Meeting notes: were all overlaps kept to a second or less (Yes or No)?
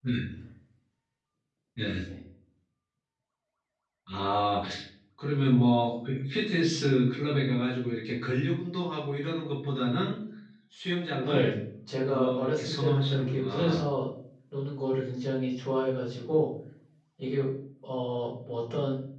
No